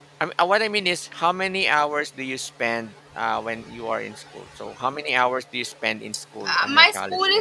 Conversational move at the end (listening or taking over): taking over